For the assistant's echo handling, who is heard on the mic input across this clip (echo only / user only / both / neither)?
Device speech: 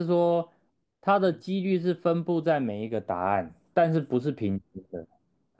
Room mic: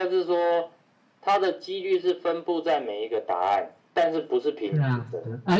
both